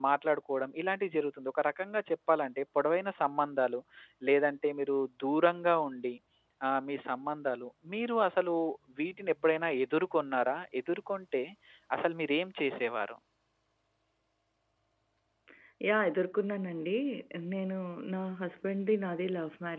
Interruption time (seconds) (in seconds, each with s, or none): none